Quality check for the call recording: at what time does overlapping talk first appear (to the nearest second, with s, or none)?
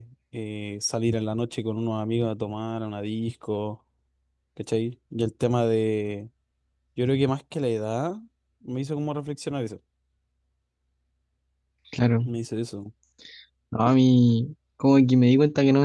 none